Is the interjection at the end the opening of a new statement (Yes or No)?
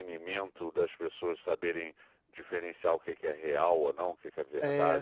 Yes